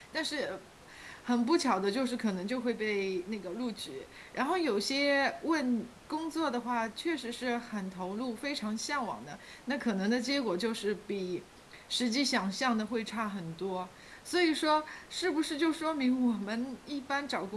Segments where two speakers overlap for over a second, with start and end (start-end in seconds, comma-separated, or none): none